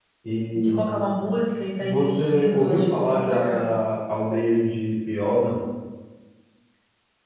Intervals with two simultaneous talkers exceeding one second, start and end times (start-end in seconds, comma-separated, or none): 1.8-3.7